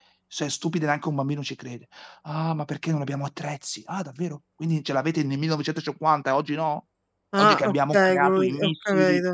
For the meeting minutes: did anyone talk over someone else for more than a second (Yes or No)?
Yes